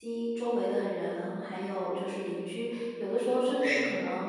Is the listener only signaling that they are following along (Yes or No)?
Yes